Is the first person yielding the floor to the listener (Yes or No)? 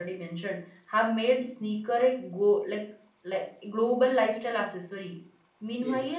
No